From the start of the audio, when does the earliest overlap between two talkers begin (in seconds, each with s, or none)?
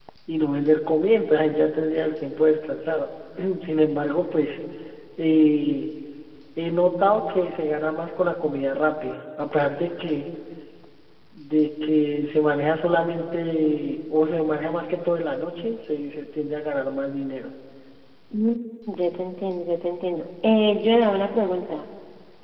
none